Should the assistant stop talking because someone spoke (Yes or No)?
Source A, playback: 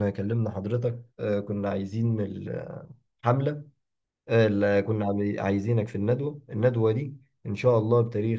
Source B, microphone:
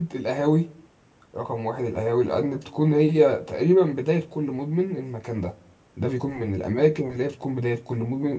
Yes